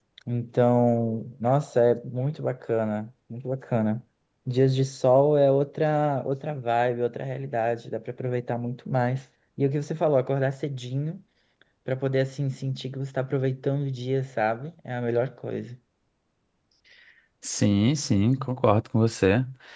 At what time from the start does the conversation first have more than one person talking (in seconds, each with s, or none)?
none